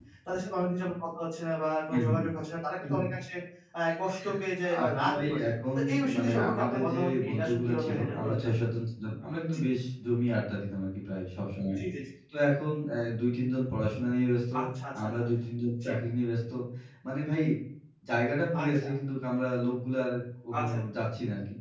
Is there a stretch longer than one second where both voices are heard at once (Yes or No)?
Yes